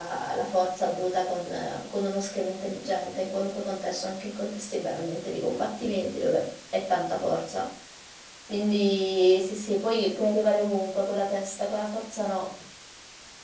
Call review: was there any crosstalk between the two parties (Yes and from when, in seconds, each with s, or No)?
No